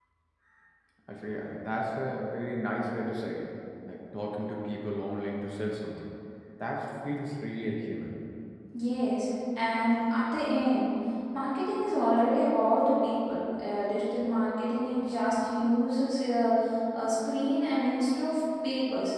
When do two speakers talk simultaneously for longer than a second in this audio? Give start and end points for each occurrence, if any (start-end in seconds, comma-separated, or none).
none